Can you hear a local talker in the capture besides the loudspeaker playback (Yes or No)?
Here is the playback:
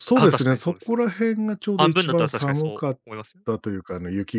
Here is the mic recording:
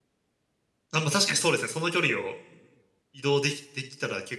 Yes